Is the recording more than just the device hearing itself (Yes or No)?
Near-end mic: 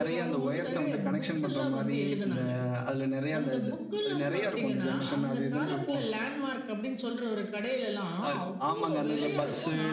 Yes